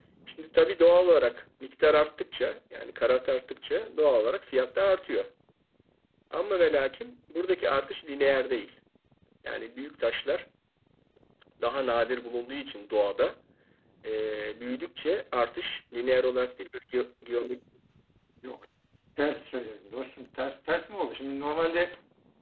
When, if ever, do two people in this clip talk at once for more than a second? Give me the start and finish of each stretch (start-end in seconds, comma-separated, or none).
none